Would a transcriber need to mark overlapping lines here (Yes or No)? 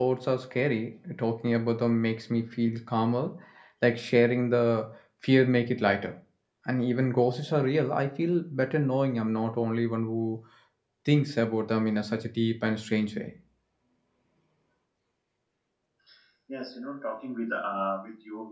No